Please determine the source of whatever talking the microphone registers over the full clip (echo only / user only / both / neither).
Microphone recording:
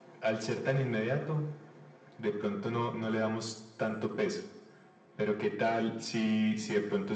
echo only